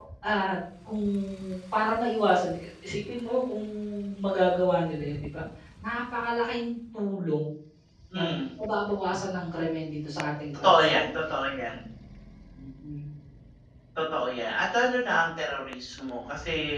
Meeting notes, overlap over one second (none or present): none